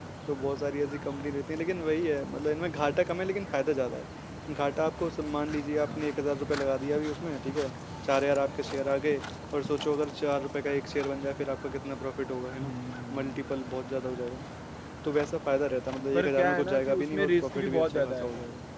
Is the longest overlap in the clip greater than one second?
Yes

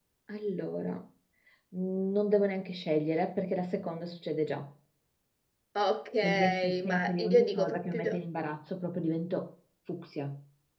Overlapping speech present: Yes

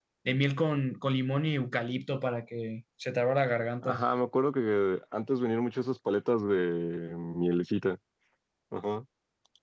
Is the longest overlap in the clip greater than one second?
No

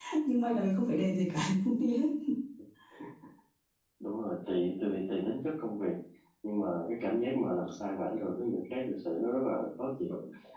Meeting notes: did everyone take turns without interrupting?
Yes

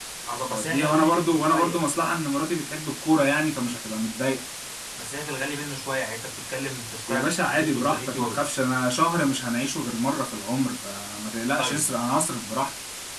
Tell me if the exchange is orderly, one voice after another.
No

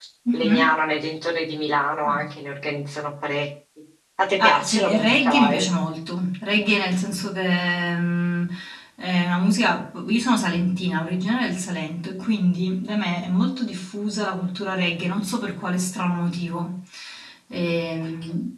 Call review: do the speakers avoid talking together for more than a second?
No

